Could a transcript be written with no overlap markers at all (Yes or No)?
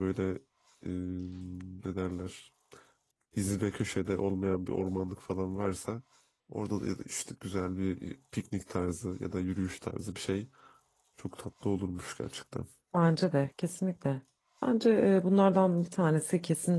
Yes